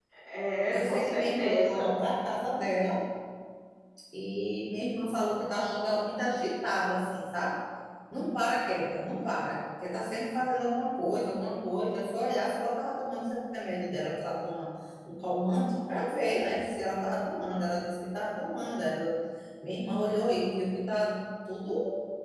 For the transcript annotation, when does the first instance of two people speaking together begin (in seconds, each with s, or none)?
0.7 s